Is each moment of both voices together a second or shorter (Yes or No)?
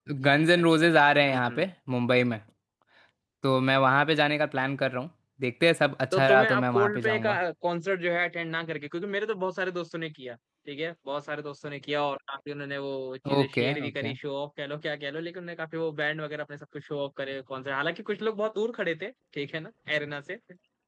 No